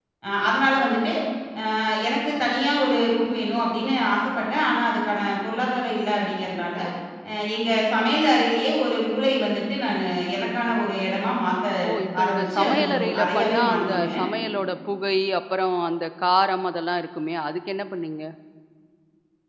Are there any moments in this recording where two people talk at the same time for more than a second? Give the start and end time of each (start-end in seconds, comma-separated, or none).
12.2-14.2